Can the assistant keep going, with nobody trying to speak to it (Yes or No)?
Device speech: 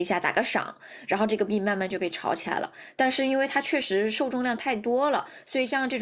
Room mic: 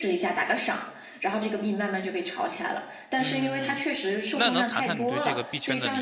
No